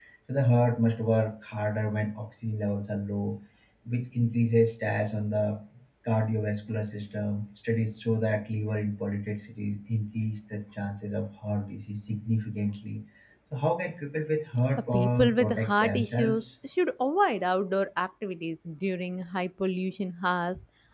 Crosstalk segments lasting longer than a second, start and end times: 14.9-16.4

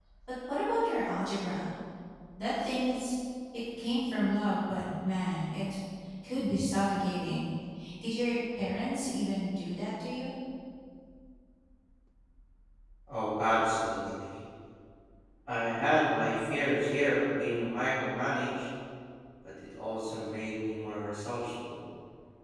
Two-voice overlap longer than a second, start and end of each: none

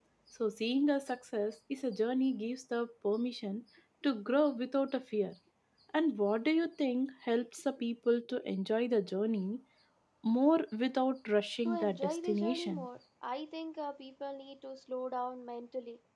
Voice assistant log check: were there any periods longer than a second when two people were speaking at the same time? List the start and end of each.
11.7-12.9

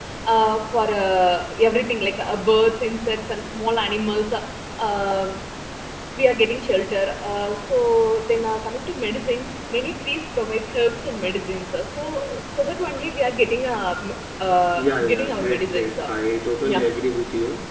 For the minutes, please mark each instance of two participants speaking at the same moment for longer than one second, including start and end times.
14.8-16.1

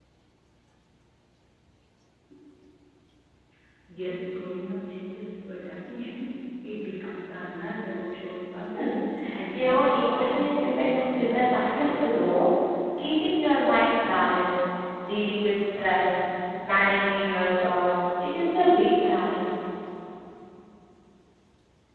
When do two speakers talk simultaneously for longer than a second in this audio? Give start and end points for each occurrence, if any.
9.5-11.7

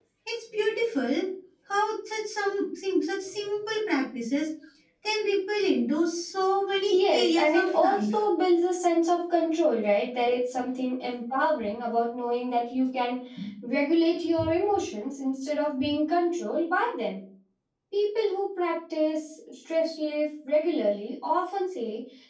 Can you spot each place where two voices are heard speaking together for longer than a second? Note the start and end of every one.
6.9-8.1

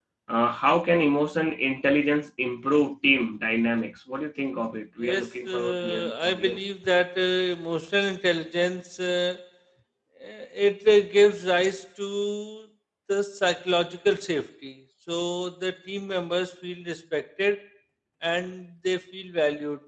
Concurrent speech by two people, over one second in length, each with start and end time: 5.0-6.6

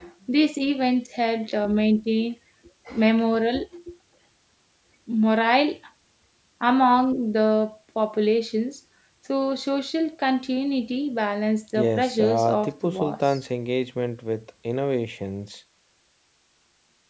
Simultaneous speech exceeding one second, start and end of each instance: 11.8-13.4

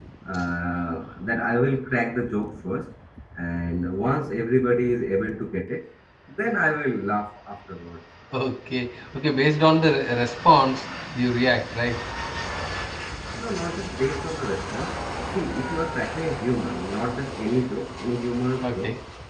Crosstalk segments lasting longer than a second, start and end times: none

